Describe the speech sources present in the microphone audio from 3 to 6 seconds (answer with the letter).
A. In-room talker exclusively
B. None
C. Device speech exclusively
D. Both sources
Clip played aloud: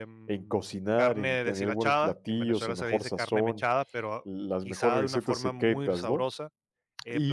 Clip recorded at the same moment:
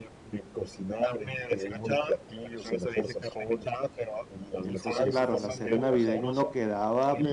D